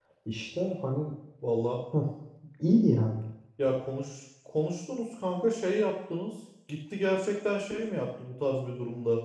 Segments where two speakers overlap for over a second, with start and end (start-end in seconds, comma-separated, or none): none